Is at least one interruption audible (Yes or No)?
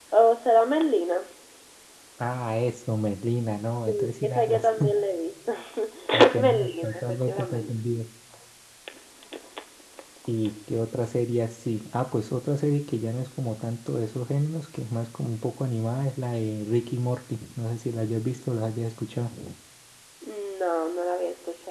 Yes